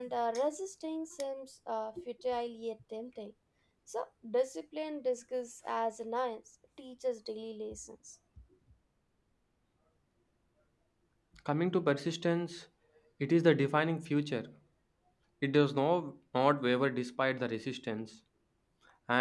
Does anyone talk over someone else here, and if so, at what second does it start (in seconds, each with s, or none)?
none